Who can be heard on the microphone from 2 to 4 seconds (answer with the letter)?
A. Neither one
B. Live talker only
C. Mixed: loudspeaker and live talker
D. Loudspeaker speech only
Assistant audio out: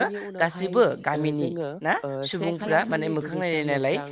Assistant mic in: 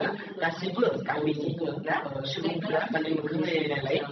D